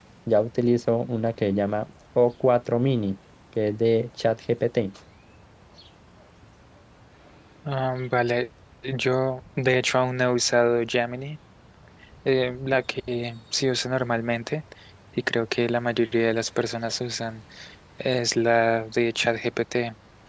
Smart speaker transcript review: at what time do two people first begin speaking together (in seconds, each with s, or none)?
none